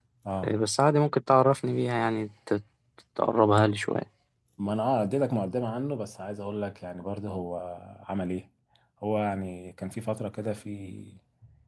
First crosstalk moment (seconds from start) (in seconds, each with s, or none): none